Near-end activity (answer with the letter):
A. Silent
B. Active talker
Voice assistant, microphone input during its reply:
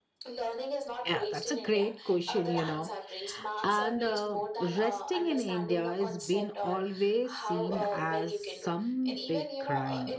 B